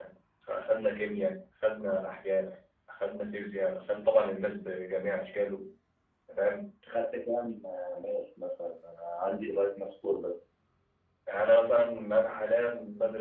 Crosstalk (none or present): none